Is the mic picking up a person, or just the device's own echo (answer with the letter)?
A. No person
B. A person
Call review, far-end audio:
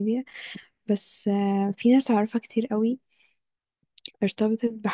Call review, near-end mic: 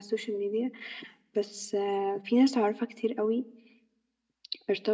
A